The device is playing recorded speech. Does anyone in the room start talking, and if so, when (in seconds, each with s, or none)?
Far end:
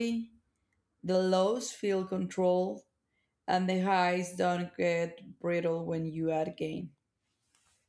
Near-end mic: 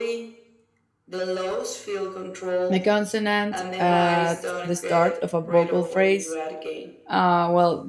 2.7 s